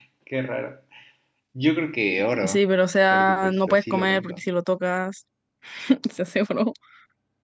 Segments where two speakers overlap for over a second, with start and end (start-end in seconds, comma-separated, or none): 3.1-4.4